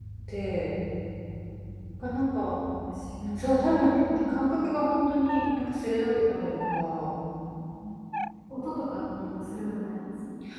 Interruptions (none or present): none